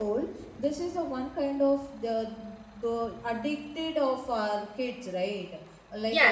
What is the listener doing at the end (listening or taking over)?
listening